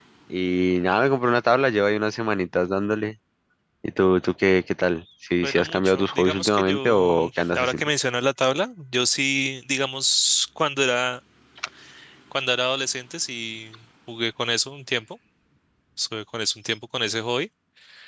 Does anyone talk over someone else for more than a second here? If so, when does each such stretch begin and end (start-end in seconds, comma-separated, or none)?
5.4-7.8